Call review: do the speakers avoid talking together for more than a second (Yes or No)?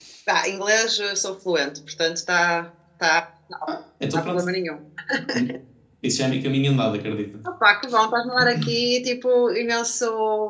Yes